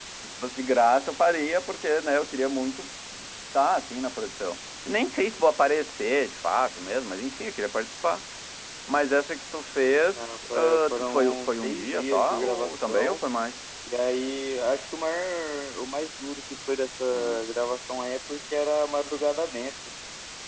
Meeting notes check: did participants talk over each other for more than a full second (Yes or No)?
Yes